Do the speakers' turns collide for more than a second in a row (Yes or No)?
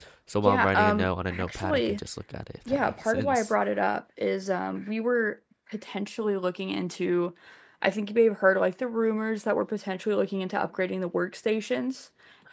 Yes